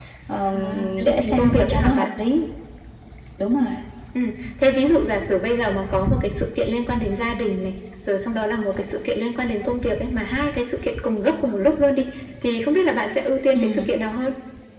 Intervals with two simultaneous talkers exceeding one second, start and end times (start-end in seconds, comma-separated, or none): 0.5-2.0